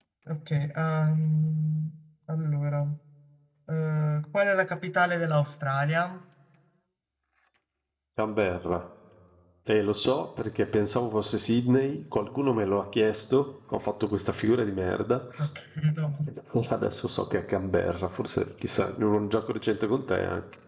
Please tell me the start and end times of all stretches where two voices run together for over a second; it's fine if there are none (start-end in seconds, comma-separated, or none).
none